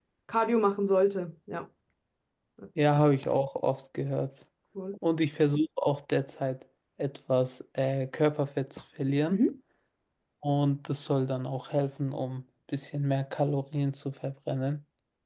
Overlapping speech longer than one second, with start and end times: none

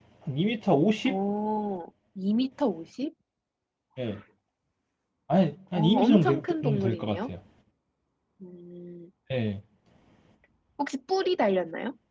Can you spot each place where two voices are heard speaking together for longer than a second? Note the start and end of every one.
5.8-7.3

